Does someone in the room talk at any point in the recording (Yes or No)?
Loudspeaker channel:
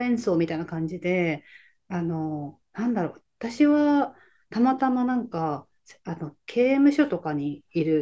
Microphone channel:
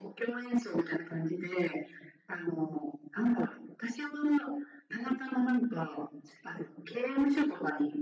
No